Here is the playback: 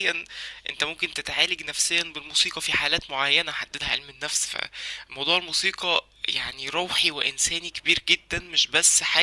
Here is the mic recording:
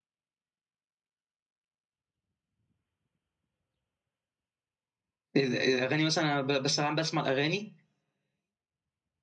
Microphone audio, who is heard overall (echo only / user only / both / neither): user only